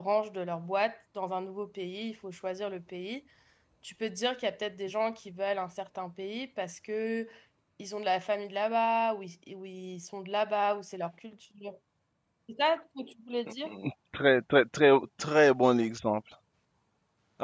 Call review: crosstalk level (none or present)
none